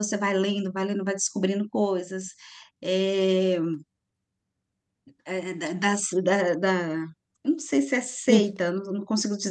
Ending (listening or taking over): listening